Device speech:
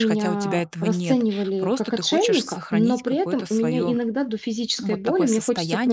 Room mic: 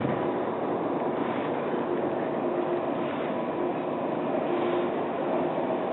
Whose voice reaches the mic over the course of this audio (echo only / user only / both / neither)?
neither